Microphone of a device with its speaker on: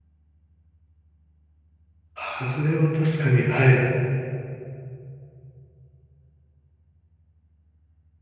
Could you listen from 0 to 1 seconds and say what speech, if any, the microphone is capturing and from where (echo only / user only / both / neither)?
neither